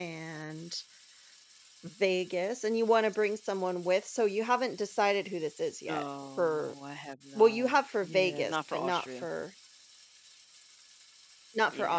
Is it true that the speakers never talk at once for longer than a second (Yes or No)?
No